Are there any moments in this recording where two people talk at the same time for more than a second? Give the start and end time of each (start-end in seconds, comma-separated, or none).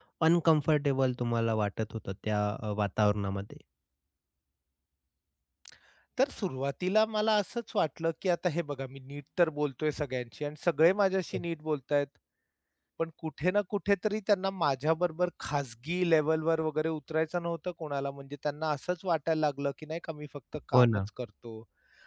none